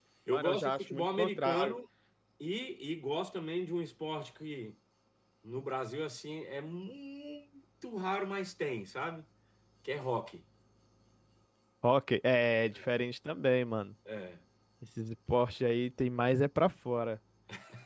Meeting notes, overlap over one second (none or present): present